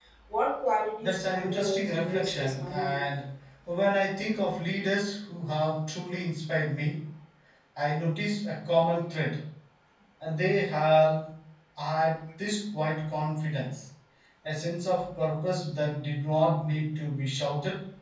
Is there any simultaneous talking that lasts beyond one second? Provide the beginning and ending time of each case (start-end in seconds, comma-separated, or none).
1.0-3.0